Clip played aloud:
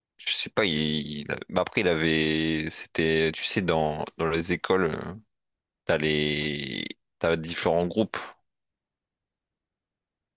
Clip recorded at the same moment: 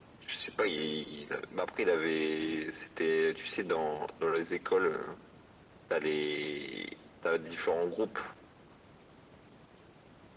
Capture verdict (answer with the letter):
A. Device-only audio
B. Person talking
A